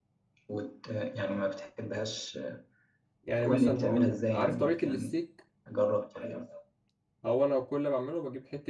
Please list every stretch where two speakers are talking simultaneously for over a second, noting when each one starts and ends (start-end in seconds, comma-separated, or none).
3.4-5.2